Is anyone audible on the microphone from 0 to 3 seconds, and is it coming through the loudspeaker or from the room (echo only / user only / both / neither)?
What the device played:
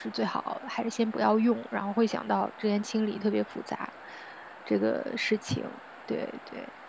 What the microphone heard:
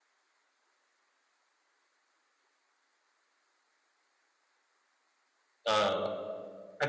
neither